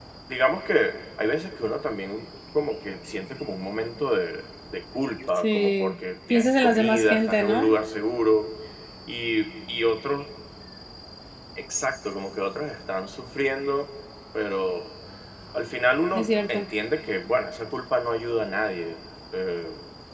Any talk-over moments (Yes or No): Yes